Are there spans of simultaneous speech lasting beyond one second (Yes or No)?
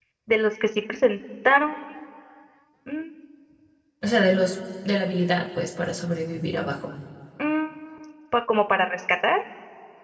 No